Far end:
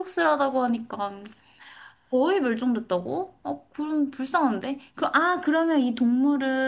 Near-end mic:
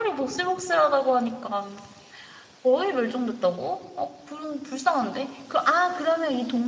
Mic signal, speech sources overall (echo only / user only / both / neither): echo only